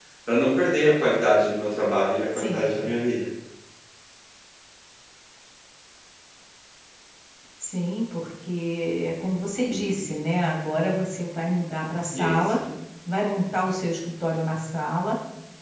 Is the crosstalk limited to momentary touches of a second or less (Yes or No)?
Yes